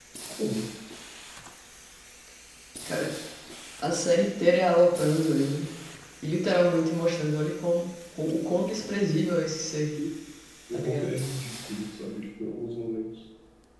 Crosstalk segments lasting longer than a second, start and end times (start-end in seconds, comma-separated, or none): none